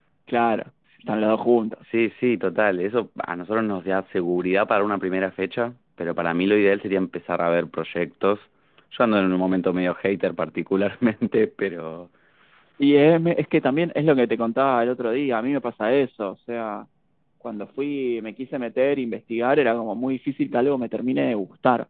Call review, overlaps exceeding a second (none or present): none